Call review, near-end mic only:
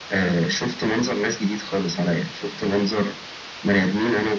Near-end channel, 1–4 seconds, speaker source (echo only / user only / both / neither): echo only